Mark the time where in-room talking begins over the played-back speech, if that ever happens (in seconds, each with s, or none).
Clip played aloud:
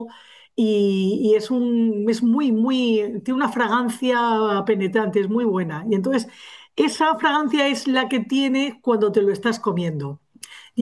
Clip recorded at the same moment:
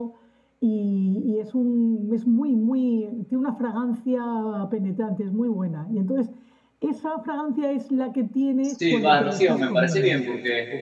8.6 s